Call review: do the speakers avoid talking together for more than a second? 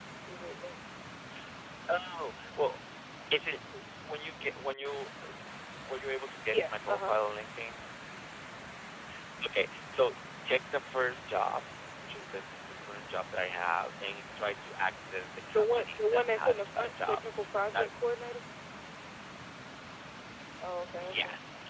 No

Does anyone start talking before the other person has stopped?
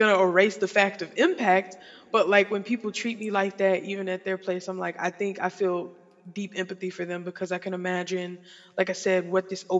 No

